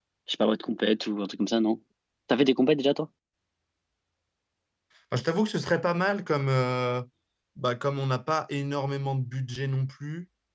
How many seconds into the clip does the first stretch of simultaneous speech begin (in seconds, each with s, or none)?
none